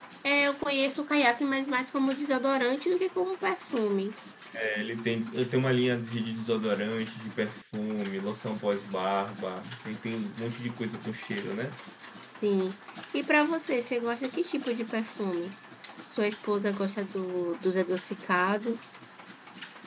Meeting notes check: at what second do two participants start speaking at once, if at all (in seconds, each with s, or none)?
none